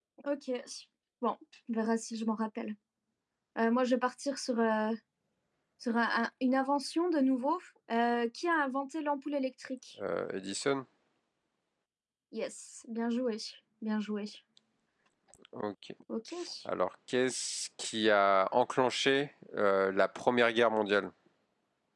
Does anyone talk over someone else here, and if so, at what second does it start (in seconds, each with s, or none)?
none